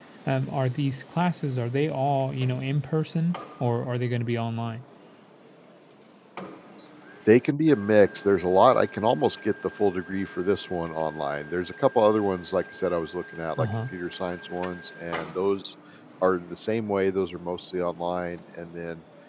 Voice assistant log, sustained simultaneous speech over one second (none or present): none